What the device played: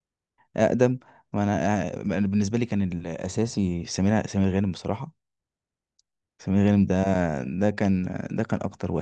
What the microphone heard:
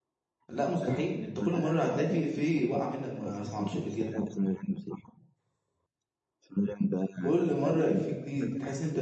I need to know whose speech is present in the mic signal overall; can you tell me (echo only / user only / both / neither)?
both